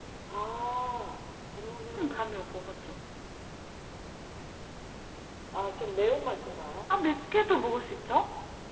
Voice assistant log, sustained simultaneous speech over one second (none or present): none